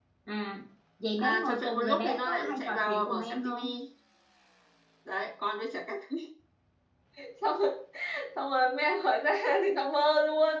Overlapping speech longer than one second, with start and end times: 1.2-3.7

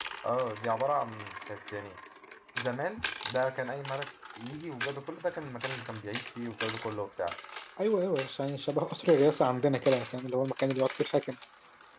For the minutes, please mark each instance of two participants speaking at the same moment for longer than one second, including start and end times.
none

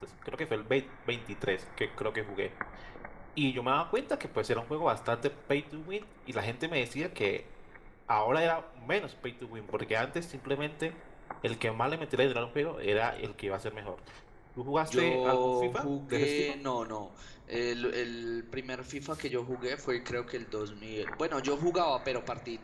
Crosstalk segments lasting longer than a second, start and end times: 14.9-16.6

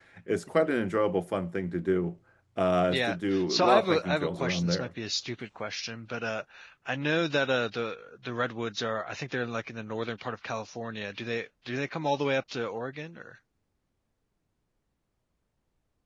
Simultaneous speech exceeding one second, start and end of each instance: 2.9-4.9

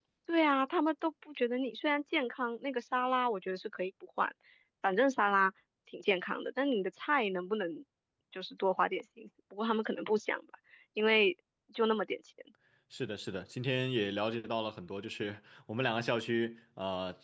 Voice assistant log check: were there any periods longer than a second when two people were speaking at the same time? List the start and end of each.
none

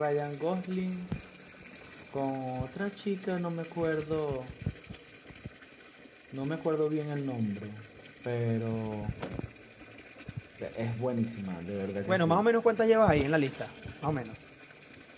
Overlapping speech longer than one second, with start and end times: none

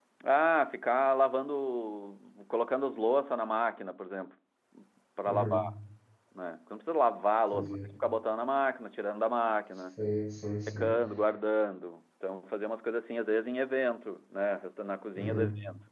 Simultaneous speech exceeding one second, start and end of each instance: none

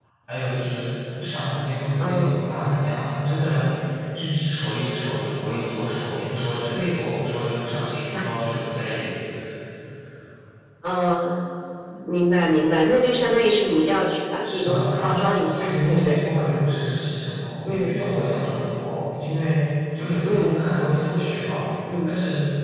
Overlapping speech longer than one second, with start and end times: 14.5-16.1

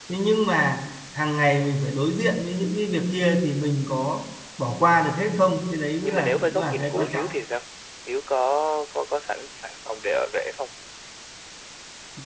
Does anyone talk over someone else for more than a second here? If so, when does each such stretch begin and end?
6.0-7.2

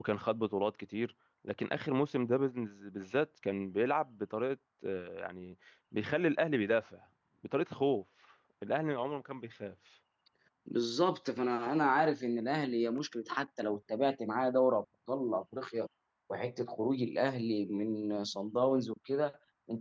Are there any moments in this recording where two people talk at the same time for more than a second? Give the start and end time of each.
none

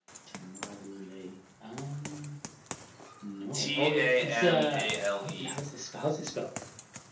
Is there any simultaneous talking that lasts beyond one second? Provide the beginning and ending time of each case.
3.5-5.5

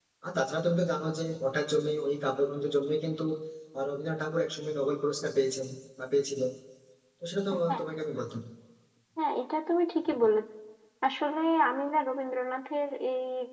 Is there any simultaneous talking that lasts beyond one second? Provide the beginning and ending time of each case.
none

